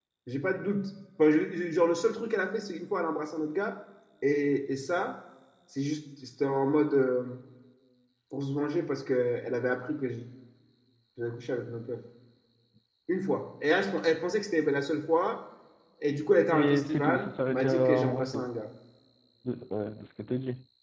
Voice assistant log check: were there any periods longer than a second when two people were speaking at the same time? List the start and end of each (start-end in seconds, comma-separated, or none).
16.5-18.4